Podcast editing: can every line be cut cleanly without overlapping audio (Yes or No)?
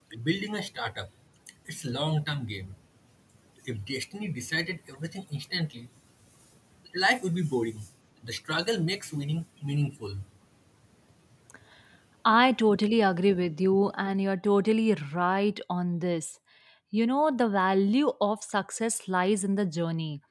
Yes